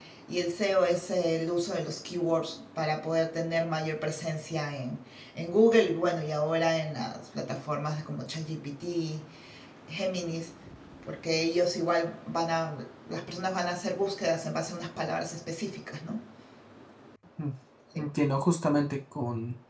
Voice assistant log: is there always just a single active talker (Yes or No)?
Yes